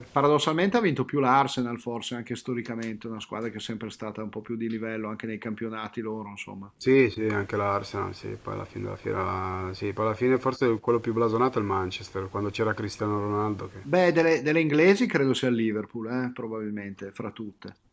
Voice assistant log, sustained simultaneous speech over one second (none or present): none